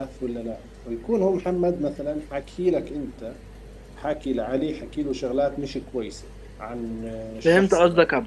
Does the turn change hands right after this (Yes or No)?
Yes